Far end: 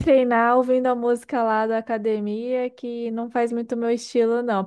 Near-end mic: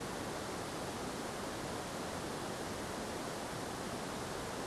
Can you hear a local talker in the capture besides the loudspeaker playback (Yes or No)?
No